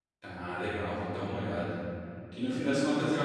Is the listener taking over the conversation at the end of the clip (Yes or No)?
No